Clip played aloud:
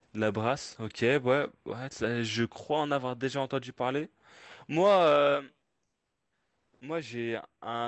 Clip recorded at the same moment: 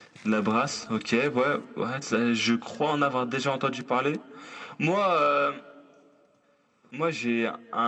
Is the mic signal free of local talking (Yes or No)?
Yes